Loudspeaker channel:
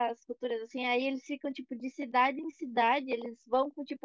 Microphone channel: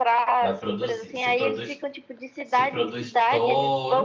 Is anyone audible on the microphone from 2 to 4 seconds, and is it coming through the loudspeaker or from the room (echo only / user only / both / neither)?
both